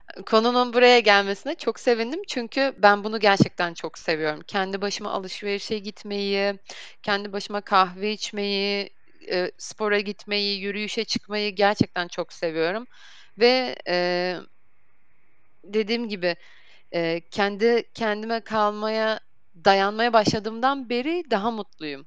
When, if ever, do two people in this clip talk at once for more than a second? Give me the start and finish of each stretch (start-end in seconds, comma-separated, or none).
none